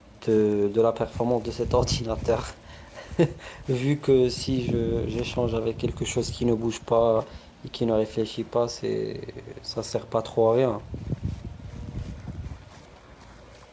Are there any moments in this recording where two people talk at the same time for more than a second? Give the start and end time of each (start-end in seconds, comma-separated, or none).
none